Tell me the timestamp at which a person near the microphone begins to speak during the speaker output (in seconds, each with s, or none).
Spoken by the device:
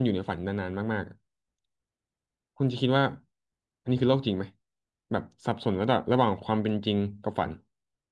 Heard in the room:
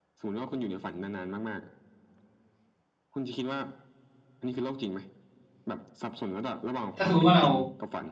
7.0 s